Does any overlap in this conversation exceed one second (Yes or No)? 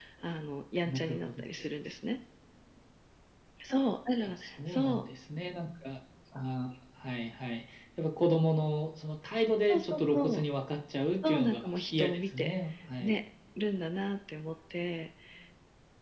Yes